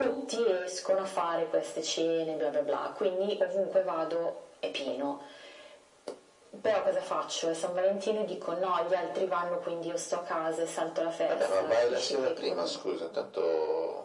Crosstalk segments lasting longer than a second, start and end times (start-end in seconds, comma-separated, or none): 11.3-12.8